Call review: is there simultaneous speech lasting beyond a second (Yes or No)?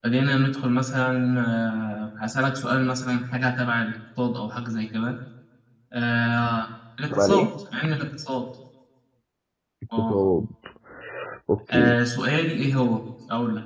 No